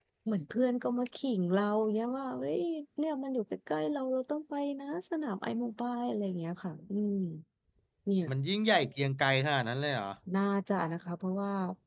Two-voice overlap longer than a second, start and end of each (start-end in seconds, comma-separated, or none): none